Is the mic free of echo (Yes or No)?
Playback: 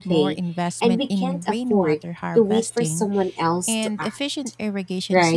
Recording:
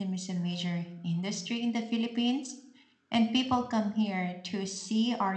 Yes